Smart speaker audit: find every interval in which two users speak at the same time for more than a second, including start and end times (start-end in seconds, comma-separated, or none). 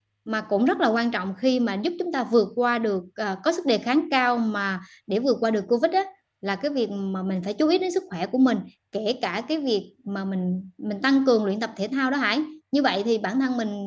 none